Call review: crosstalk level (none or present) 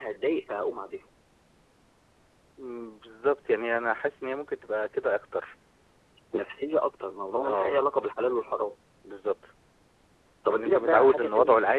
present